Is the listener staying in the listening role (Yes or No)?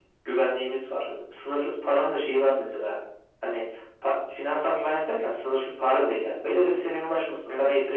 Yes